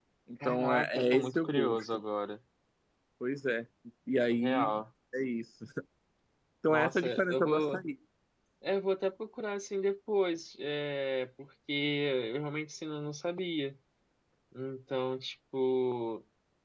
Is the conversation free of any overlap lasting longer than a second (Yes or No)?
No